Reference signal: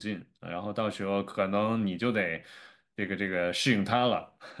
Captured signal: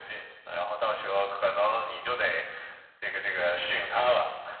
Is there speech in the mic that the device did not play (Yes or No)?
No